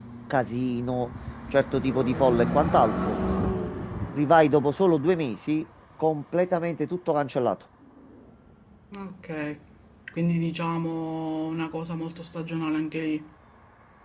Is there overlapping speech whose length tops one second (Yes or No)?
No